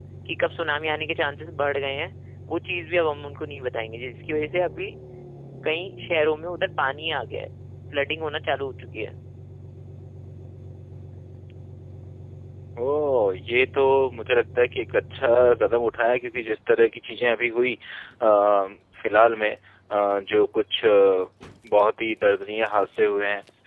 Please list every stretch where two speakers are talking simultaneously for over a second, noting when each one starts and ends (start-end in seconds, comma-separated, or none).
none